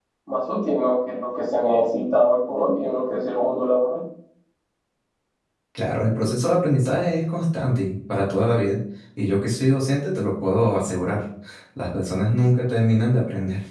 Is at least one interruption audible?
No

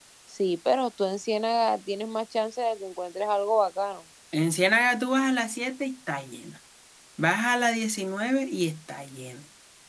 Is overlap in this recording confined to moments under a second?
Yes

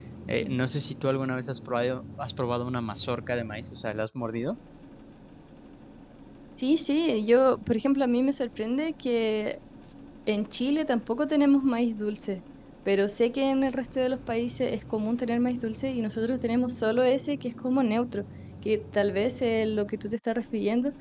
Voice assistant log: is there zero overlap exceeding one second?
Yes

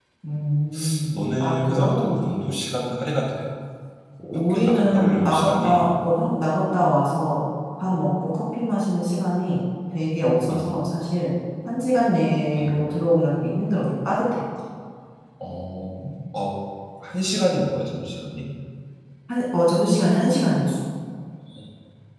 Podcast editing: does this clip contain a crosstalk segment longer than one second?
Yes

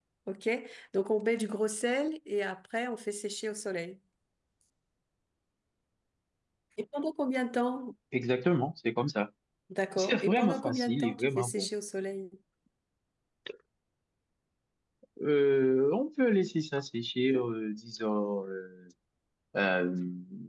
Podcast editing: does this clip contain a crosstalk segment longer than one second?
Yes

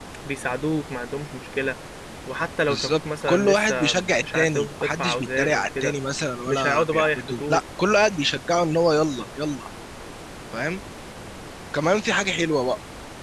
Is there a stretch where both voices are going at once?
Yes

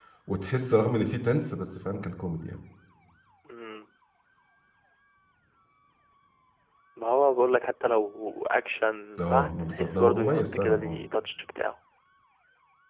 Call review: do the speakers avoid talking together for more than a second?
No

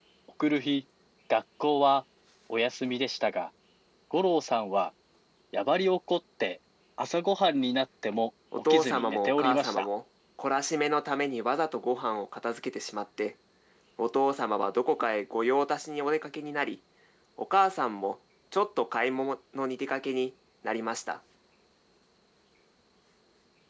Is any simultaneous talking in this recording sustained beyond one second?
Yes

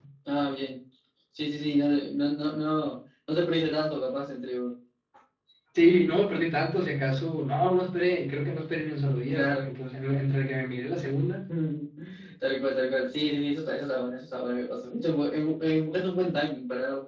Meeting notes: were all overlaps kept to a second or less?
Yes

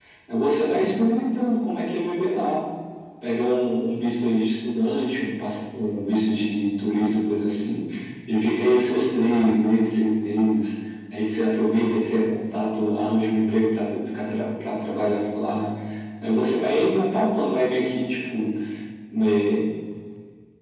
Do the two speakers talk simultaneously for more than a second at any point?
No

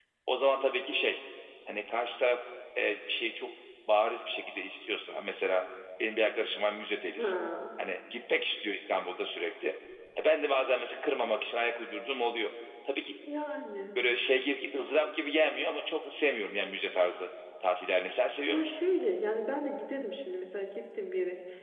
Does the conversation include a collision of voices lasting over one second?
No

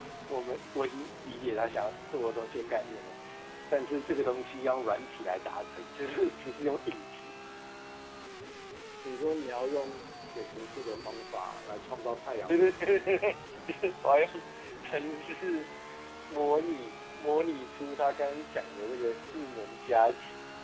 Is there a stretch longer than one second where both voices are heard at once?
No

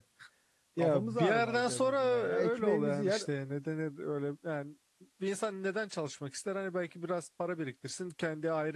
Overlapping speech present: Yes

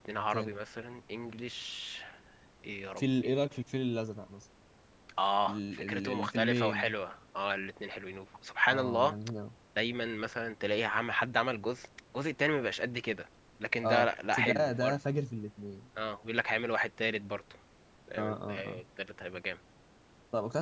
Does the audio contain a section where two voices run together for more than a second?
Yes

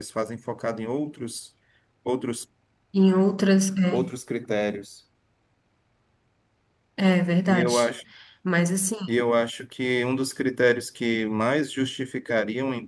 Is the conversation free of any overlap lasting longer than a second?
Yes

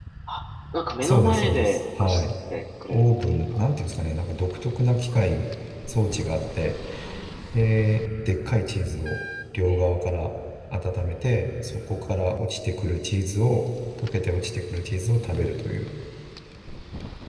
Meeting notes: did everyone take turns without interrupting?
No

